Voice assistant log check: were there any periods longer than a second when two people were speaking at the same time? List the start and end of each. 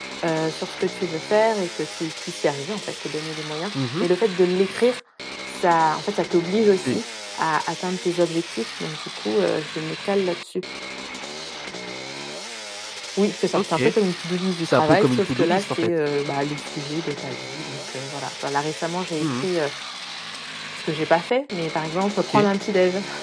14.7-15.9

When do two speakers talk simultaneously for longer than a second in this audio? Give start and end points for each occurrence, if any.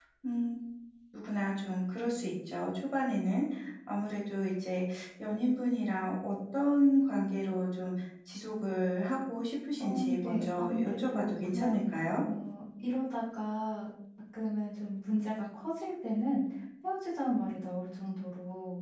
9.8-11.8

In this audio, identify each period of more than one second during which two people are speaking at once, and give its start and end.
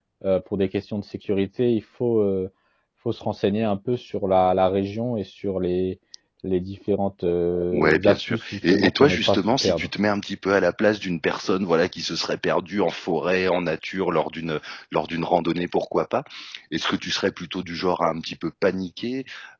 7.7-9.9

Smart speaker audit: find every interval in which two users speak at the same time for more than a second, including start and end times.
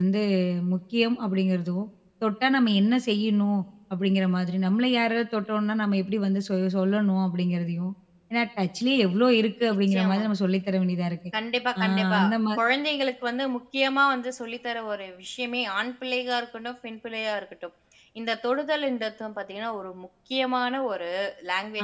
none

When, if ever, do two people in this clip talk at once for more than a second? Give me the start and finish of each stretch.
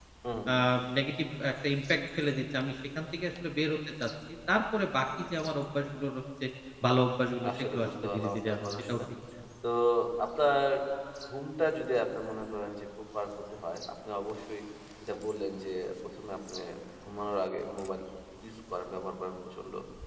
7.6-9.0

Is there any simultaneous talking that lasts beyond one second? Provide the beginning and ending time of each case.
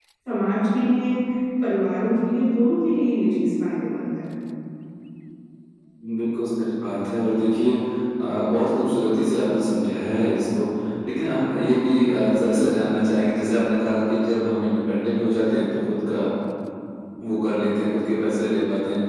none

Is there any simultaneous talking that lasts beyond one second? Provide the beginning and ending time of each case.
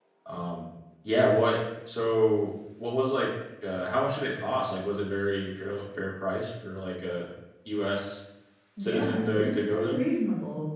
8.8-10.0

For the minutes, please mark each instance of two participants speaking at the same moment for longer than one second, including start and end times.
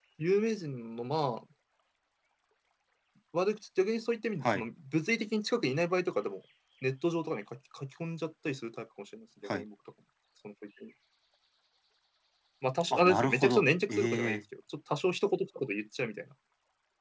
12.9-14.4

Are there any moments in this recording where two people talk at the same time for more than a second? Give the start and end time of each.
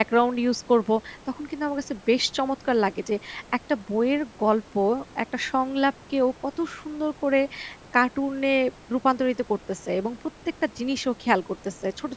none

